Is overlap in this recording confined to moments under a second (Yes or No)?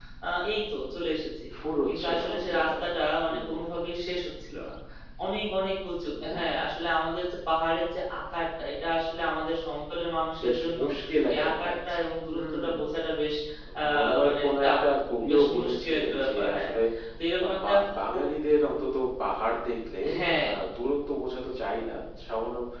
No